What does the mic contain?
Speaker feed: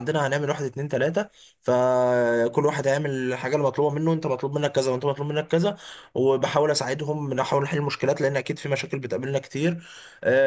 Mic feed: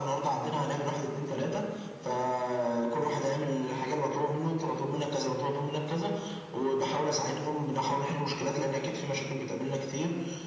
echo only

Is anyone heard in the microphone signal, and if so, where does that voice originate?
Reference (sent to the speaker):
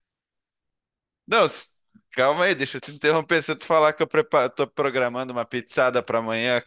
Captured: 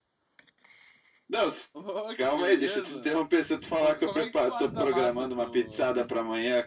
both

